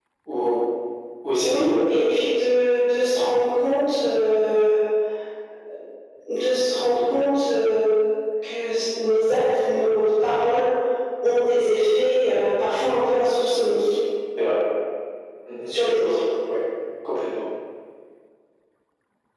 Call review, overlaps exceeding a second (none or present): none